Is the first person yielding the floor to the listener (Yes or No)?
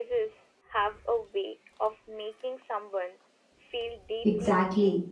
Yes